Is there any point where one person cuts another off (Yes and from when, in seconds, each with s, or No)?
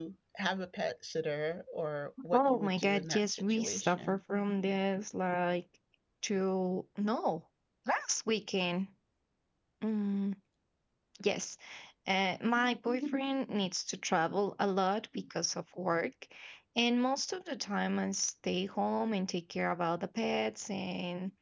Yes, from 2.3 s